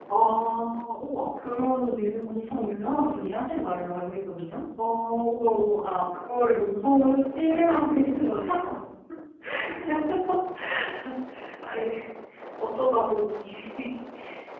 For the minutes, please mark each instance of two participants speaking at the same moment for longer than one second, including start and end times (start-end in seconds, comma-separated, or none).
none